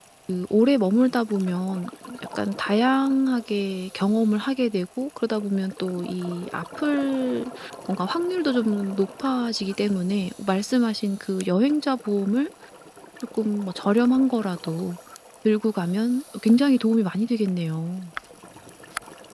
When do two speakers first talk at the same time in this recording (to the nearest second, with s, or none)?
none